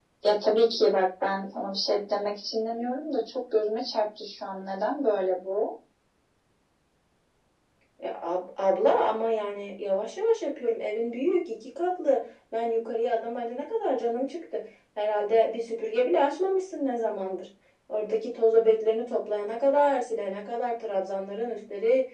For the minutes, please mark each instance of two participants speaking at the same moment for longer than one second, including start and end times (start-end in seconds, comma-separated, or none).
none